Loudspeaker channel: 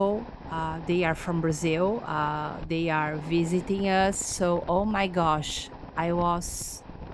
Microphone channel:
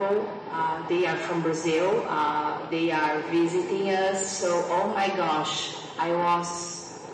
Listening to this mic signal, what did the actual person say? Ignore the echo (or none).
none